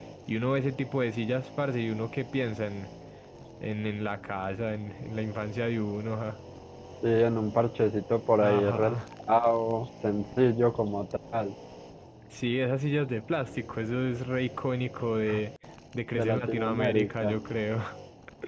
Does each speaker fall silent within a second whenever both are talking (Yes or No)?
No